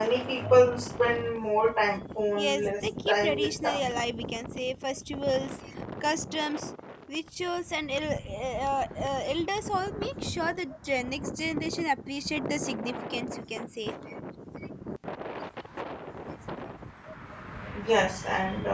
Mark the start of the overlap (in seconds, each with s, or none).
2.4 s